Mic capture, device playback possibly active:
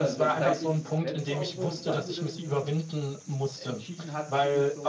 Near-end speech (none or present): present